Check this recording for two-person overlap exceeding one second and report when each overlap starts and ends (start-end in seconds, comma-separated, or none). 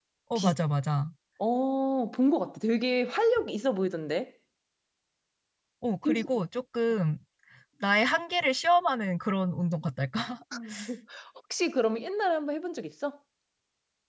none